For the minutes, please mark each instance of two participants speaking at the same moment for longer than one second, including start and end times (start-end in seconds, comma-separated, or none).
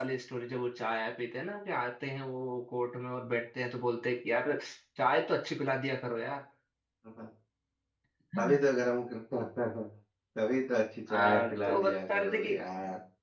11.1-12.5